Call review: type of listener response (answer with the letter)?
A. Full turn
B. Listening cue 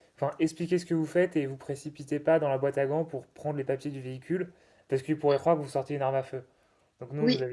B